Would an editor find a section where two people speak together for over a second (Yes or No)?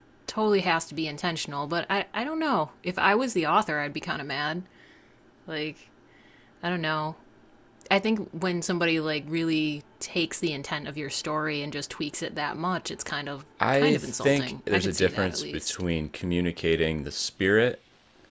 Yes